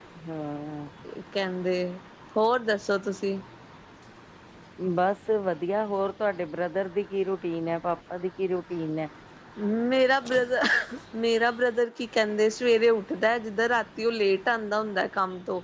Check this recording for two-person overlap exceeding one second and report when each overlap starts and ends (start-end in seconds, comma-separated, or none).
none